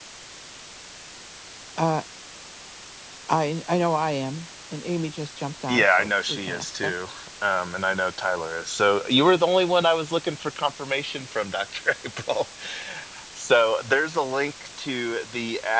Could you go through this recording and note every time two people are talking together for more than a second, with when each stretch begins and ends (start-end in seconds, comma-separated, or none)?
5.7-6.9